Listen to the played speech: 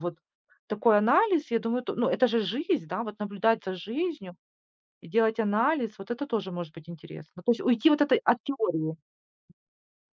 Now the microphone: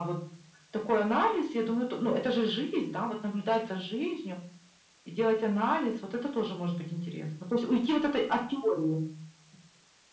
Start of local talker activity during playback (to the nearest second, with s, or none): none